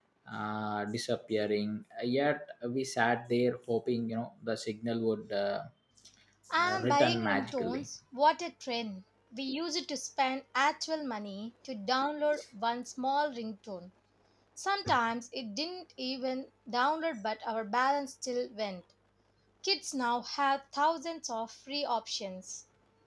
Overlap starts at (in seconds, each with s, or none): 6.6 s